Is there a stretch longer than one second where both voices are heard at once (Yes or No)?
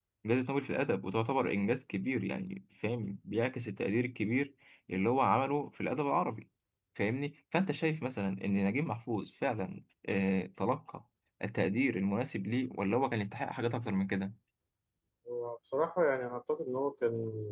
No